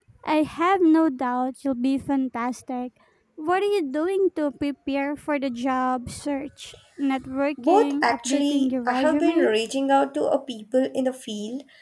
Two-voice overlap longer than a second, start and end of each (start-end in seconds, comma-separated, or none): 7.7-9.5